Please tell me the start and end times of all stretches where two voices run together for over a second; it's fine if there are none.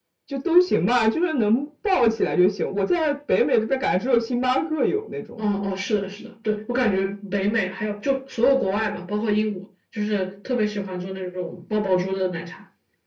none

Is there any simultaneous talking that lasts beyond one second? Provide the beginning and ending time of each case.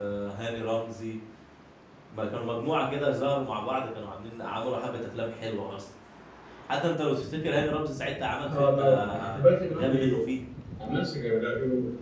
8.4-10.1

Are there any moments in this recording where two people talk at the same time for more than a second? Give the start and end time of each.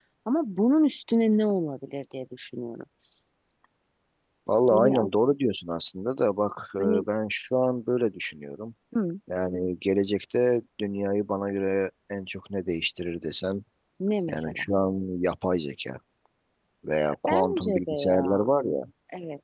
17.3-18.5

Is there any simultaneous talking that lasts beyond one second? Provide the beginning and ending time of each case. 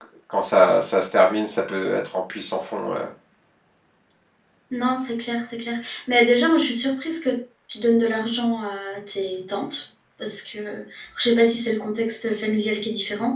none

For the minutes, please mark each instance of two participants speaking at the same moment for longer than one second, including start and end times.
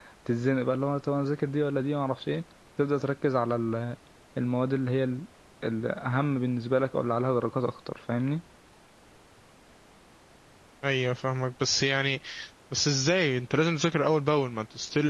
none

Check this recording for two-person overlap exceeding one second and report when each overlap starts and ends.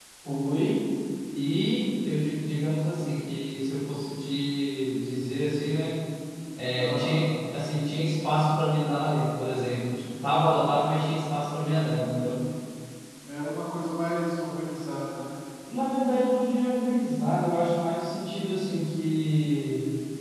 none

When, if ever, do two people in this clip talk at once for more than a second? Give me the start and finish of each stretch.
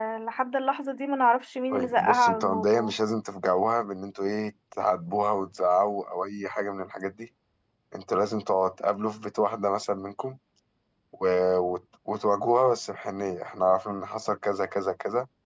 1.7-2.9

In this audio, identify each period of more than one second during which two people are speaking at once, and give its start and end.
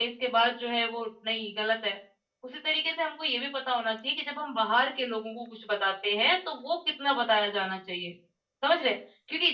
none

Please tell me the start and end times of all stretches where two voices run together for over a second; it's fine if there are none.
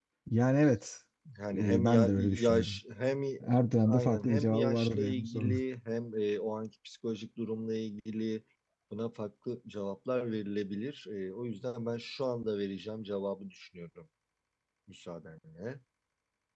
1.5-2.8, 3.9-5.6

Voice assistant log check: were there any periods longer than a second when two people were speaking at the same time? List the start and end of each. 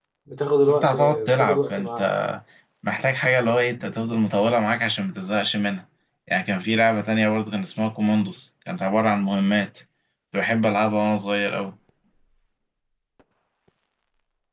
0.7-2.0

